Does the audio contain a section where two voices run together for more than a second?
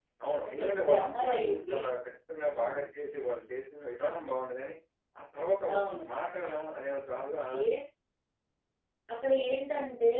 Yes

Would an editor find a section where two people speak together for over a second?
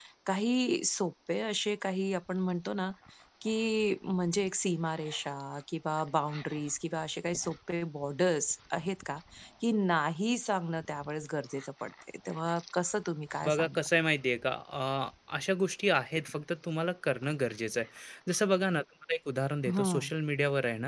No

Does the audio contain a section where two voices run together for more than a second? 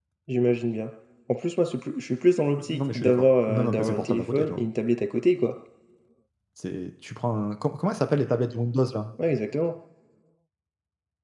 Yes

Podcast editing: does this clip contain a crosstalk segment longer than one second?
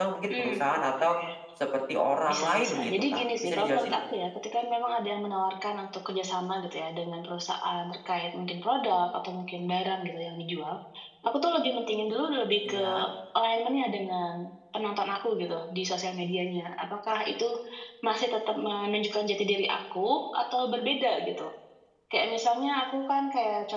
Yes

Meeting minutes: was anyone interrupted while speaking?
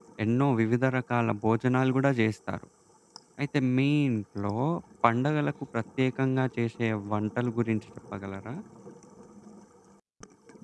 No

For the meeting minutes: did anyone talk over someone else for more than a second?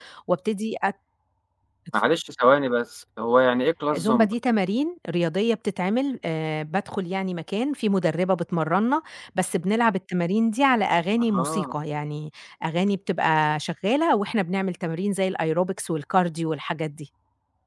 No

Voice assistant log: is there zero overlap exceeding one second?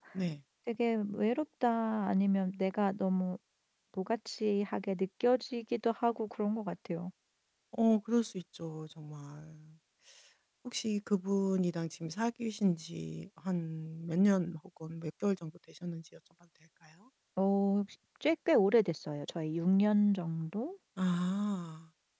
Yes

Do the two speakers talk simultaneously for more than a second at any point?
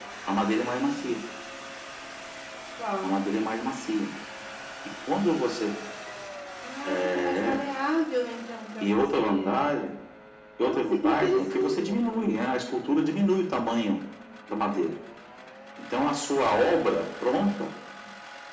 Yes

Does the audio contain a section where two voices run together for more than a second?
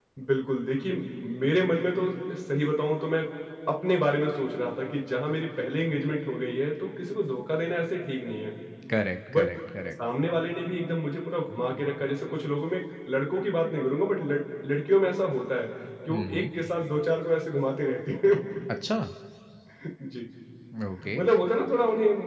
No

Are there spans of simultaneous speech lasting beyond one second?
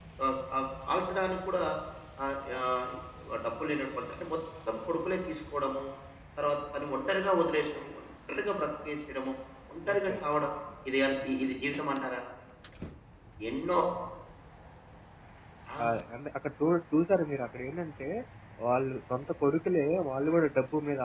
No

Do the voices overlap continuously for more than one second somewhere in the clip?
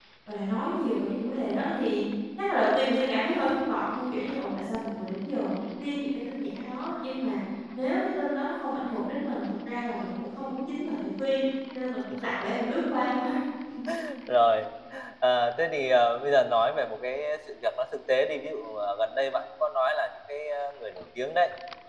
No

